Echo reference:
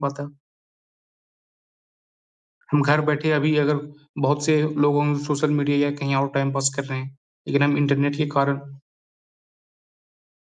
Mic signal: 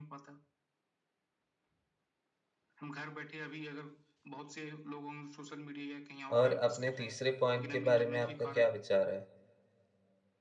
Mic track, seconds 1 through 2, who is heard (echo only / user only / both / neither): neither